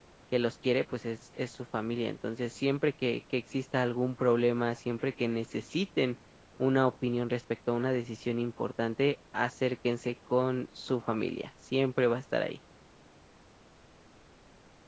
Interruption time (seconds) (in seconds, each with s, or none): none